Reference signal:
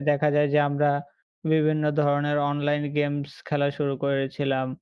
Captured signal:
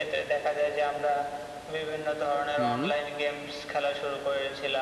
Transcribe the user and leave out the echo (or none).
হুম।